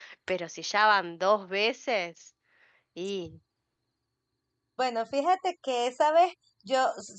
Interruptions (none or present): none